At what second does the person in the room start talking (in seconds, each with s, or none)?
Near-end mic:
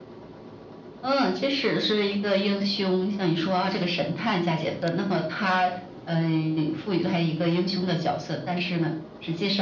none